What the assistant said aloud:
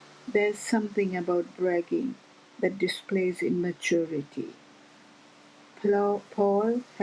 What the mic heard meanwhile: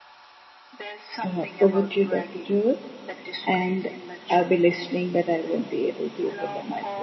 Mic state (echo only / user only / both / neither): both